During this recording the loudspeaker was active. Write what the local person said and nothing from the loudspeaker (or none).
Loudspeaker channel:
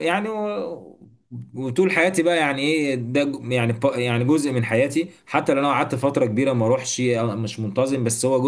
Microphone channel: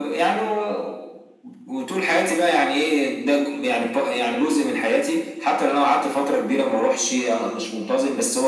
none